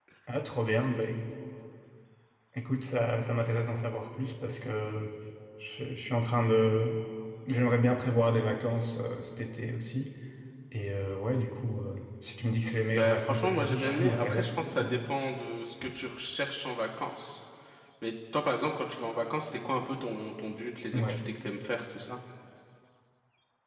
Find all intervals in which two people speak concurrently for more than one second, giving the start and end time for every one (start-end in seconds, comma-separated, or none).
12.9-15.0